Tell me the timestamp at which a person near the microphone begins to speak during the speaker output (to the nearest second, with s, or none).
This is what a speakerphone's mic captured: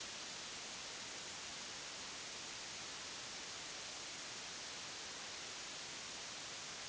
none